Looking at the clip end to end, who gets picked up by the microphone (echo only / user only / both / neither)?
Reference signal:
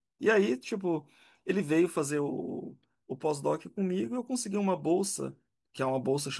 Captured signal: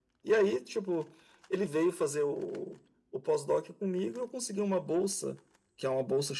echo only